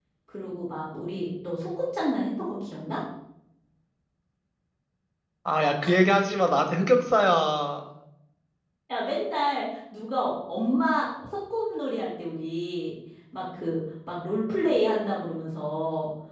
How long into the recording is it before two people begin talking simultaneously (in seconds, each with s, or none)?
none